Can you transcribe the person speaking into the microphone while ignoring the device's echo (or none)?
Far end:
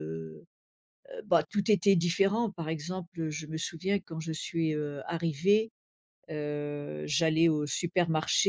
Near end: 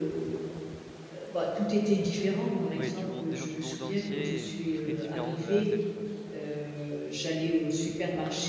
Ouais du monde des gens du monde entier et très différents de A à Z quoi?